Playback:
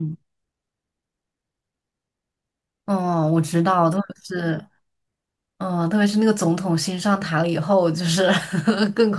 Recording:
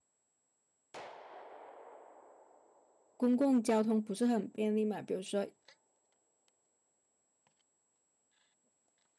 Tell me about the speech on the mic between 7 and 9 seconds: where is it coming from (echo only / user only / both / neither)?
neither